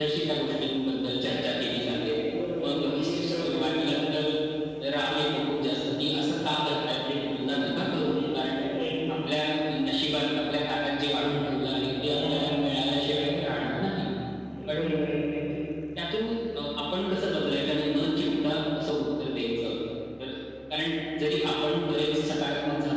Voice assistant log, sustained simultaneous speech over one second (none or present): present